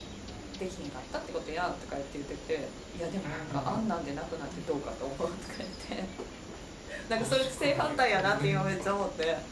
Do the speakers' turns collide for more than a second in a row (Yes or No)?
Yes